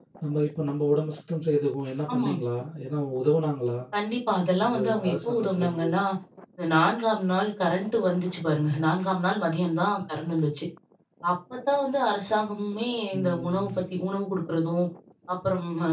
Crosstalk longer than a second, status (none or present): present